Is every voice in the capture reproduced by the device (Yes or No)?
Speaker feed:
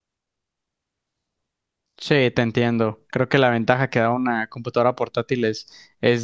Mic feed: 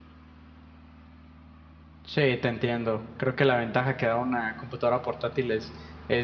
Yes